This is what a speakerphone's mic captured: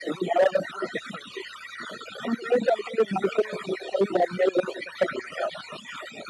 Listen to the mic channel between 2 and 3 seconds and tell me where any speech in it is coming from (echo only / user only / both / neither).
echo only